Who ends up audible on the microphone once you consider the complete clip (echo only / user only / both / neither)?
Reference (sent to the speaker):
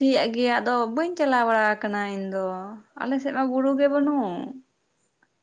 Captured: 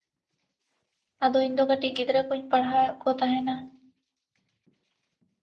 user only